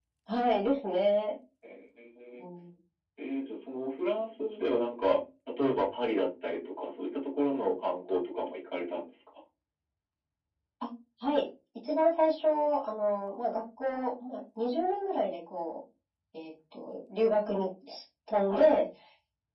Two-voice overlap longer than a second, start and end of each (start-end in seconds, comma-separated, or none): none